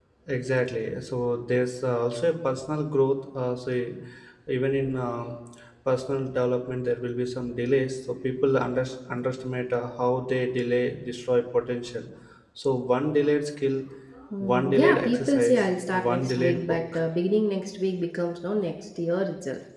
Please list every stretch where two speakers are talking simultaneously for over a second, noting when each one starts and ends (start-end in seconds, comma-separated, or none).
14.4-16.8